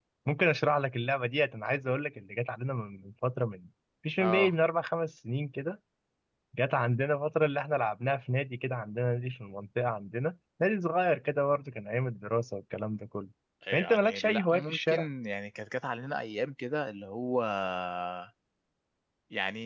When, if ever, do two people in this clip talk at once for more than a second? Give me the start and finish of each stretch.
13.7-15.1

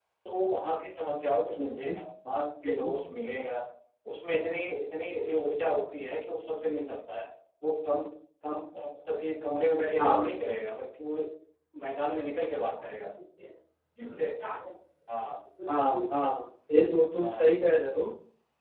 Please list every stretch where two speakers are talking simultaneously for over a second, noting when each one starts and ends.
none

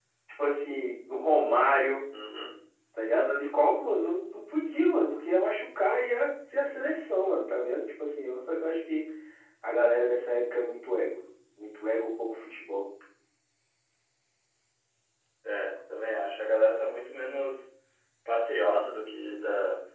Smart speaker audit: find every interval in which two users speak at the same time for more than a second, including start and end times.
none

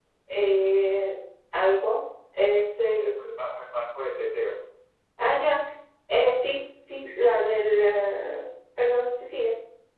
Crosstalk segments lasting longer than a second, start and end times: none

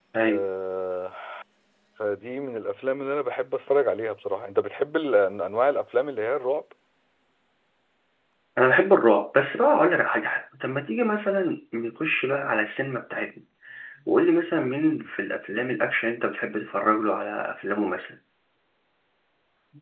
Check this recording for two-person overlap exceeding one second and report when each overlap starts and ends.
none

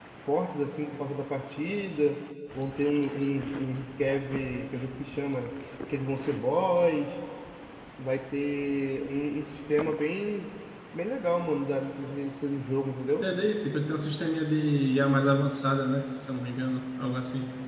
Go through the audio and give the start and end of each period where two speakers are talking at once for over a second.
none

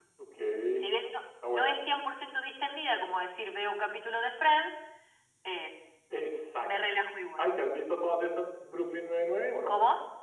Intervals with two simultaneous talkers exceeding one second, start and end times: none

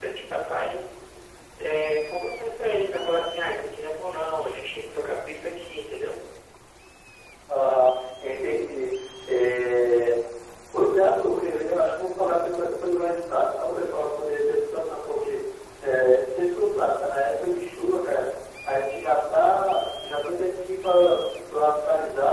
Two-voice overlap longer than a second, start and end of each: none

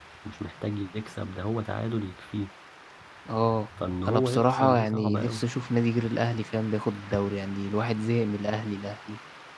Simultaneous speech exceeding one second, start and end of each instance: 4.0-5.4

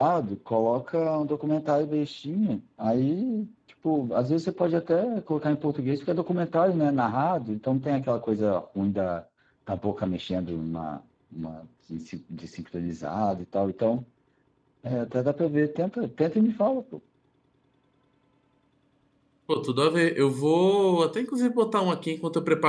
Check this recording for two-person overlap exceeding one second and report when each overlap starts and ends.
none

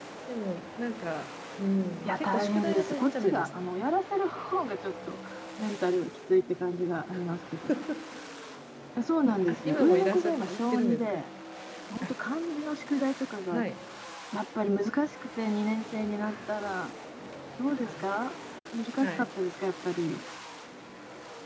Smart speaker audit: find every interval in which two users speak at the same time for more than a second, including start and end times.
2.0-3.7, 9.5-11.2

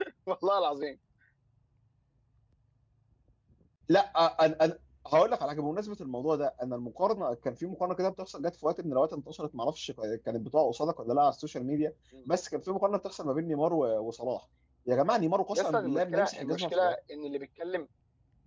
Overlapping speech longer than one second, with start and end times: 15.5-16.9

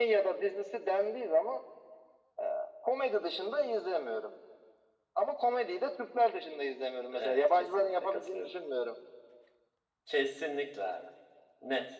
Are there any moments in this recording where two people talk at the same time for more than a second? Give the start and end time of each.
7.1-8.5

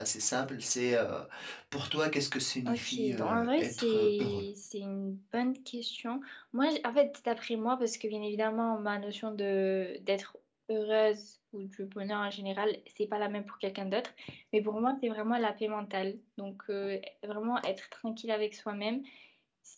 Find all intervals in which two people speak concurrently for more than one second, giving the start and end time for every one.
2.7-4.4

